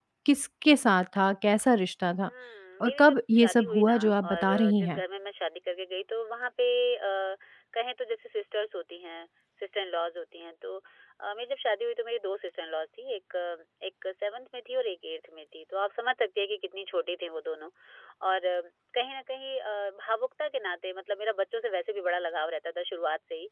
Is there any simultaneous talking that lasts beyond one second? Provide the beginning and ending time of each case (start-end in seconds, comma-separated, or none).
2.8-5.0